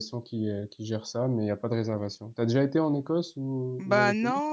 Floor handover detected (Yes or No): Yes